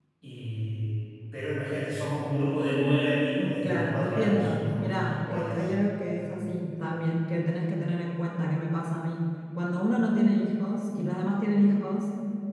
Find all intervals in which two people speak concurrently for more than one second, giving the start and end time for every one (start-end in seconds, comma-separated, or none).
3.6-5.7